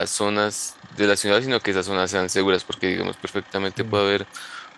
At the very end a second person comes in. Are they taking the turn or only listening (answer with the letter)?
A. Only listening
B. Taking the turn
A